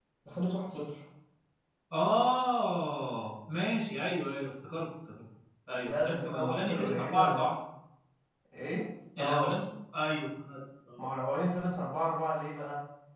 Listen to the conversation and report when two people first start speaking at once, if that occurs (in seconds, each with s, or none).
5.8 s